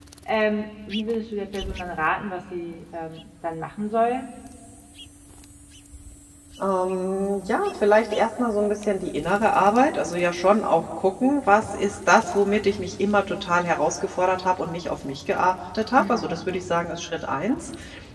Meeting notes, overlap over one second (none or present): none